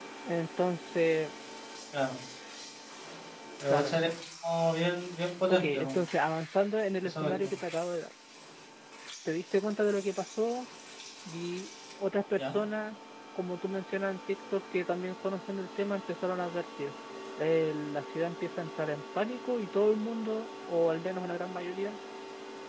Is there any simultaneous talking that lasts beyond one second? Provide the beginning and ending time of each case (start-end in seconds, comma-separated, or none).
none